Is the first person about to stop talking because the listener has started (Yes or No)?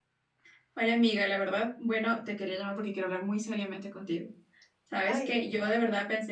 No